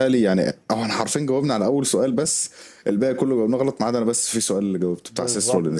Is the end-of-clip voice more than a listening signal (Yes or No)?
Yes